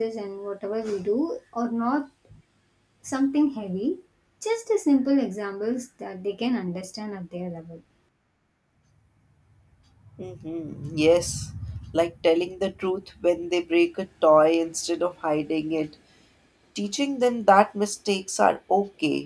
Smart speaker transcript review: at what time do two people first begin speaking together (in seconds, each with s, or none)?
none